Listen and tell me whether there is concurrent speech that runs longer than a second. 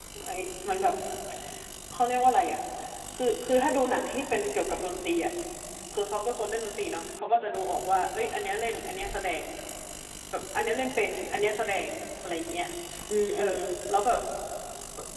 No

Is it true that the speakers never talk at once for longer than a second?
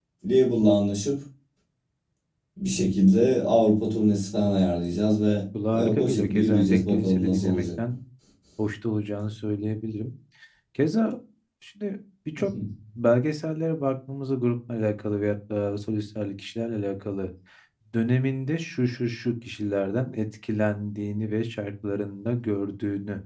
No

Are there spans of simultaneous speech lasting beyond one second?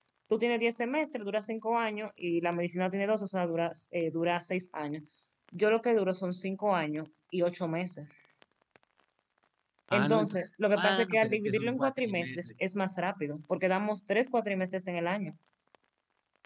Yes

